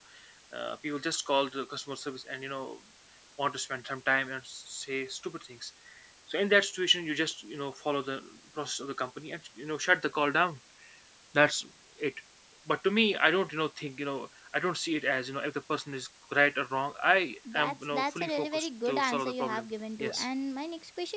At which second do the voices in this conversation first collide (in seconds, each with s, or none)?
17.4 s